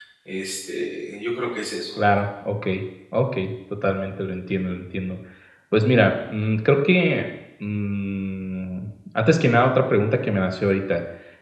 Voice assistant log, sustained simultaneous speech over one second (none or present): none